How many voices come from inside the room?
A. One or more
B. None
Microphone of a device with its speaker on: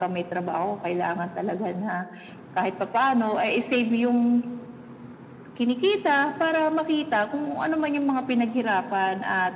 B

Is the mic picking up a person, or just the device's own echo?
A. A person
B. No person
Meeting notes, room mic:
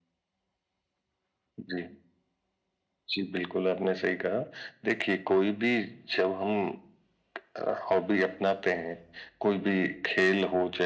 B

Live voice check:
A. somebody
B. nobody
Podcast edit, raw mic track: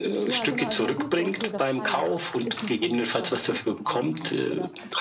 A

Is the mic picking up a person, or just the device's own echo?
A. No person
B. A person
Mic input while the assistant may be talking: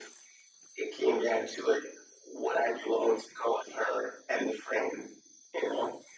A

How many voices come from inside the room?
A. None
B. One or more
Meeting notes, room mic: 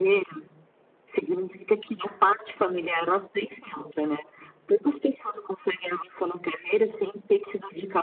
A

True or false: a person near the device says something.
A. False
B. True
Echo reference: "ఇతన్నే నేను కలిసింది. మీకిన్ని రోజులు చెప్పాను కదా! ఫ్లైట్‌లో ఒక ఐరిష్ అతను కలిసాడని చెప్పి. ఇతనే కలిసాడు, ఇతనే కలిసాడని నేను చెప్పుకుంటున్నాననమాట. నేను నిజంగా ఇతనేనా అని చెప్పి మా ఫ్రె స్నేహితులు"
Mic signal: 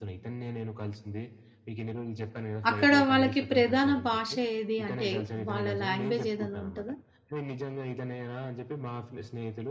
B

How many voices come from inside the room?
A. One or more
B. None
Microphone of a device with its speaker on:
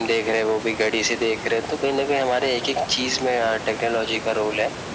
B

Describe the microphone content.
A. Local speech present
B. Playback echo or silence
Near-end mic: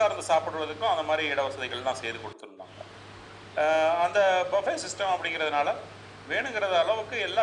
B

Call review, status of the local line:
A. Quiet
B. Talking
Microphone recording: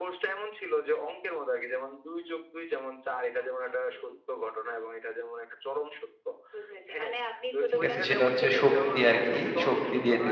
B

